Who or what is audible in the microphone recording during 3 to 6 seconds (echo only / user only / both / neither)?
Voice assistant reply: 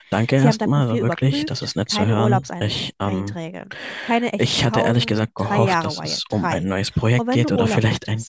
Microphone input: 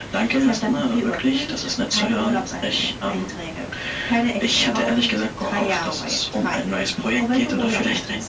echo only